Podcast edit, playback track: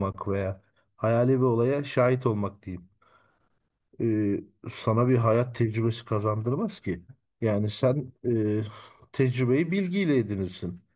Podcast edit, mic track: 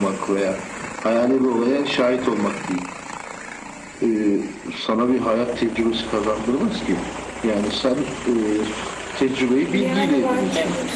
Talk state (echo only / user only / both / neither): both